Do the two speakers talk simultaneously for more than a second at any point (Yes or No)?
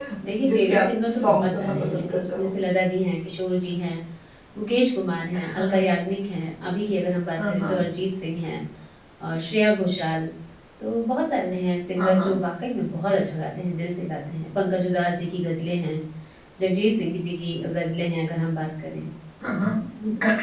Yes